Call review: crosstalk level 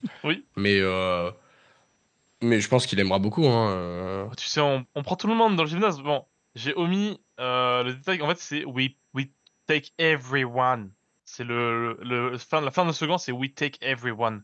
none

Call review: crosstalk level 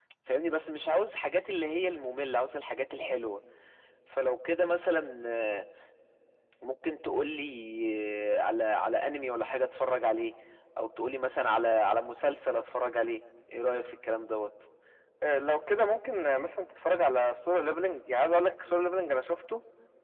none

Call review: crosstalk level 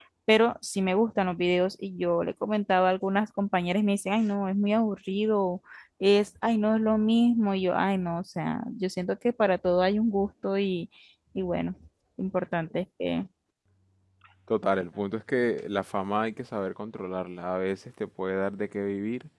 none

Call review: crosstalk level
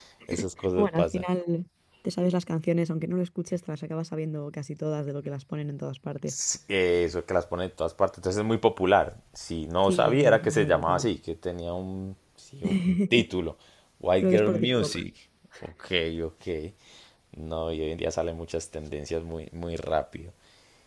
present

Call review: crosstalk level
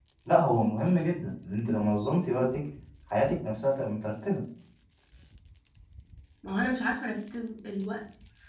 none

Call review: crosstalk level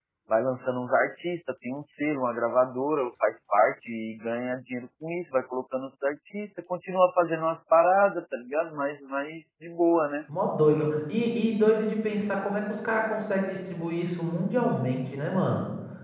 none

